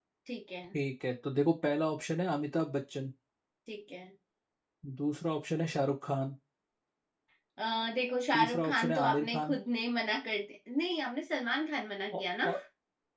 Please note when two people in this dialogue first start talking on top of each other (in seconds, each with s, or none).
8.3 s